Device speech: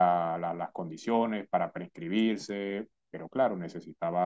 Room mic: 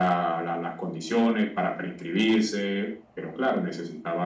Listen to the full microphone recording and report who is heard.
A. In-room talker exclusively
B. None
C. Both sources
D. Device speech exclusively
D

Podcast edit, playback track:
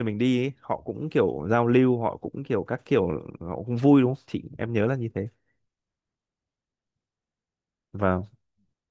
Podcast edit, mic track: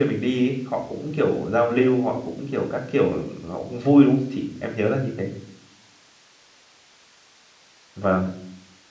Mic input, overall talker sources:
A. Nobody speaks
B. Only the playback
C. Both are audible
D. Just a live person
B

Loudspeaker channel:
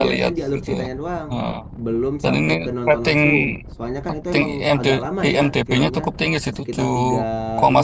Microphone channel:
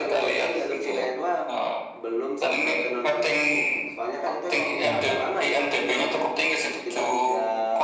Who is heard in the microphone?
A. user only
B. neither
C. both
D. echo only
C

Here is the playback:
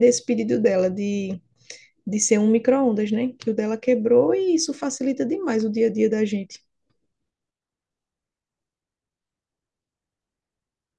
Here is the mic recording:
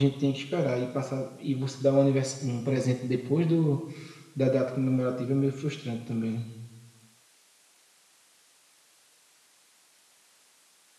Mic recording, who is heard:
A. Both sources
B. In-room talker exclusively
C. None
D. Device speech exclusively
B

